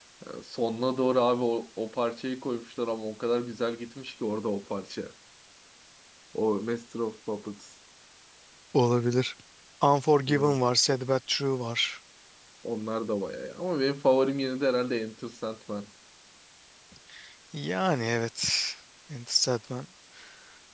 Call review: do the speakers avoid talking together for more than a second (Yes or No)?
Yes